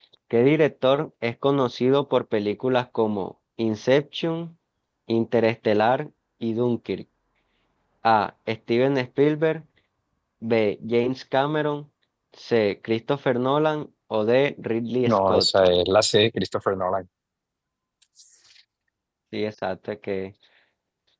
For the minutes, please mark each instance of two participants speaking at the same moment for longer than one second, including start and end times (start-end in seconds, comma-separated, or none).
none